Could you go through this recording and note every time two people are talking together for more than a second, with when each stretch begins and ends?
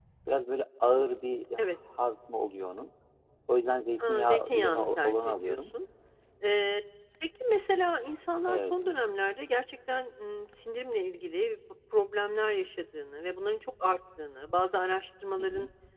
4.1-5.6

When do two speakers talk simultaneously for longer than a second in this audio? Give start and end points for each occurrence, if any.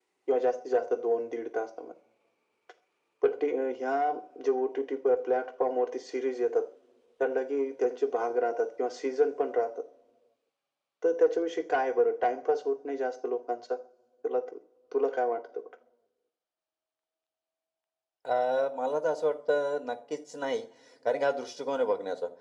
none

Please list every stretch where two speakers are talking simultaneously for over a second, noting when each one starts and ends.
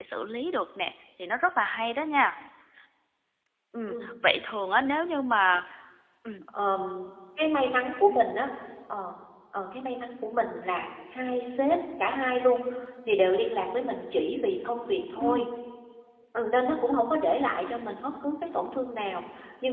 none

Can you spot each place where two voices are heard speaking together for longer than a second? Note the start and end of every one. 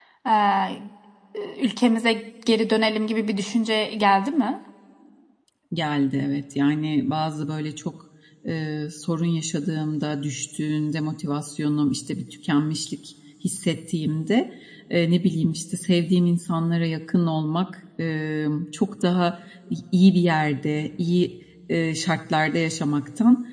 none

